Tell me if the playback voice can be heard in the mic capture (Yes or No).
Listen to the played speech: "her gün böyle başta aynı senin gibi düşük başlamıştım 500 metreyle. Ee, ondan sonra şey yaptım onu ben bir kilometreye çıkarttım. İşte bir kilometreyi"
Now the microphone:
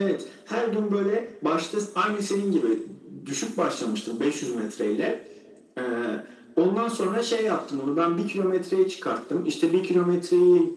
Yes